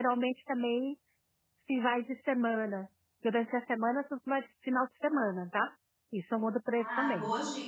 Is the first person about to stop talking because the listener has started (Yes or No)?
Yes